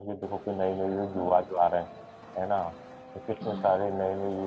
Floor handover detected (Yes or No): No